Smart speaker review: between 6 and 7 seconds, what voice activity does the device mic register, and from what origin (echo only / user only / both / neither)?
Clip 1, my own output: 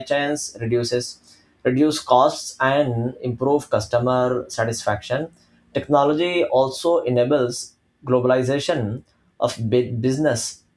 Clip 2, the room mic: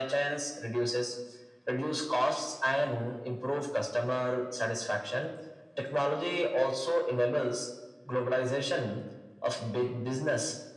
echo only